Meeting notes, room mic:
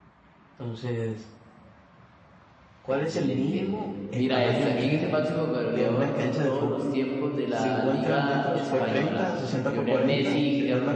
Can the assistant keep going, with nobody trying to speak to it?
No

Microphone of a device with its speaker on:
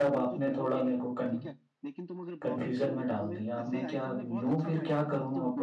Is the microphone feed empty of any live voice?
No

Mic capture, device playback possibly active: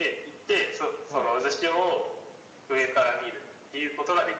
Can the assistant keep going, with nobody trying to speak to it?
No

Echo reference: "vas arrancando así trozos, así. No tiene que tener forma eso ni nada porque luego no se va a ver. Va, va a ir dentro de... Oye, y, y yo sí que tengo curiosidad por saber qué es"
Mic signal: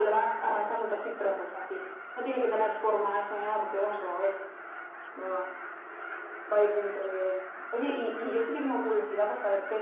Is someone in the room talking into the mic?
No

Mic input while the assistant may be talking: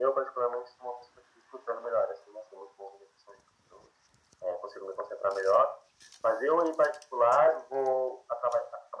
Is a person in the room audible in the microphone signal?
No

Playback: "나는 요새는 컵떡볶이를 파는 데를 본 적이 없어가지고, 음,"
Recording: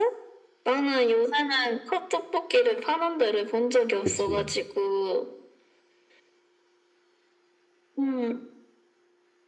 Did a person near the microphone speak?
Yes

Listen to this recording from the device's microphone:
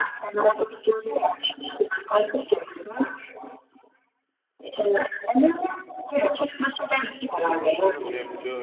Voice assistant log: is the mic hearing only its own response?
No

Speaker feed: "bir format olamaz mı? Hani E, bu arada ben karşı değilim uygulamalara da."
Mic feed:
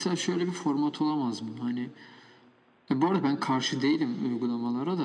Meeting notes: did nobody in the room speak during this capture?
Yes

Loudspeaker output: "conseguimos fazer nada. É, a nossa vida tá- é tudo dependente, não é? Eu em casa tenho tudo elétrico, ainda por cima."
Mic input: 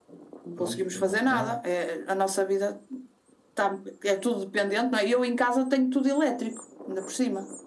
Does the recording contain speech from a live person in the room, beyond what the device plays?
Yes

